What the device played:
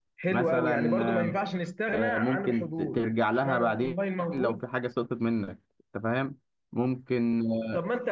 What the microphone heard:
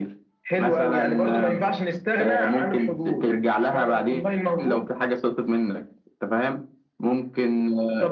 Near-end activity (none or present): none